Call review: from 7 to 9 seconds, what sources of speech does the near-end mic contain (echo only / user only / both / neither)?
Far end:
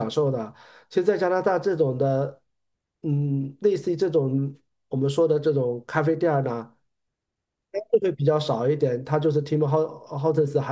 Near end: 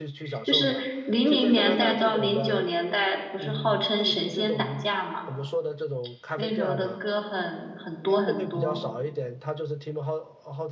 both